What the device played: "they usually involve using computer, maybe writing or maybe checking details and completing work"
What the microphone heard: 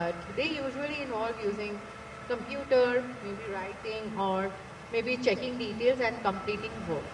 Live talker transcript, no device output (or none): none